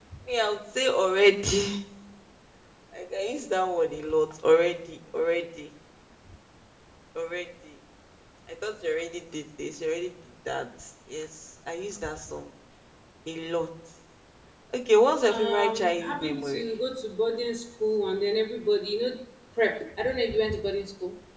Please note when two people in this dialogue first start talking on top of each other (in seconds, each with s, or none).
15.3 s